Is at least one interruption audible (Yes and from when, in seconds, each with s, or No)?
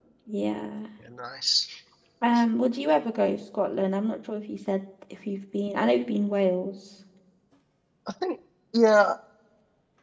No